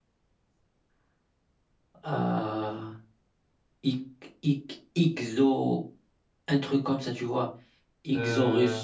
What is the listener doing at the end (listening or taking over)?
listening